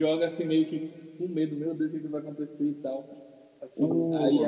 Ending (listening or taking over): listening